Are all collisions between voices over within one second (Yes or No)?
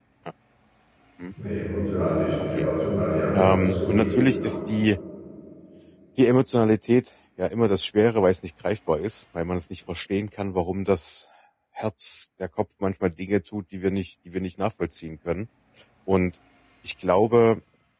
No